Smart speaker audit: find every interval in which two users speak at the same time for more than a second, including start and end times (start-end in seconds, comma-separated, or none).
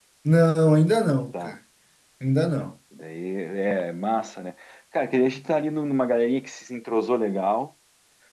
none